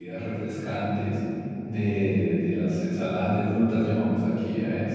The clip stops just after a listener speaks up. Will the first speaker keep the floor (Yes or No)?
Yes